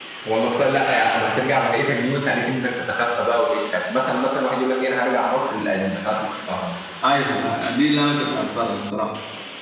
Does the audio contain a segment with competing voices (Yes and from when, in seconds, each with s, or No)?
No